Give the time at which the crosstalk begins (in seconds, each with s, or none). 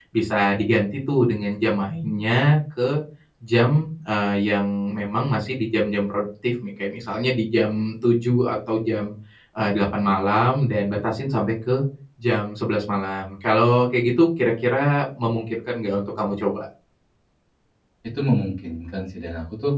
none